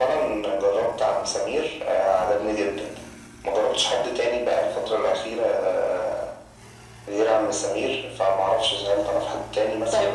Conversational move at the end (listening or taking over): taking over